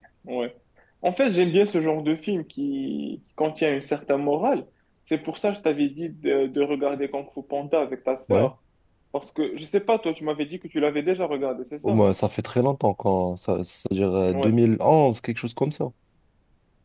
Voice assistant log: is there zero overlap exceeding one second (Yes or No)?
Yes